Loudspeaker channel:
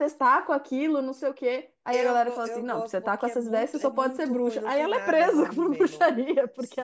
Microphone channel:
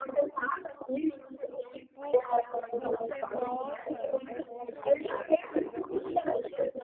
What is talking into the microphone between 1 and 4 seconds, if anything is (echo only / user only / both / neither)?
both